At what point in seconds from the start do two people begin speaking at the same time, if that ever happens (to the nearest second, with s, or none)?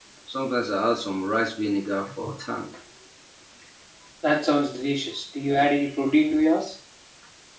none